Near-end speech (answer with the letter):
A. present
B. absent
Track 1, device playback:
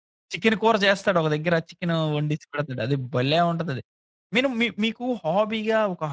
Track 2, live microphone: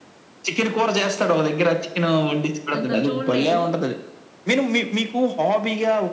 A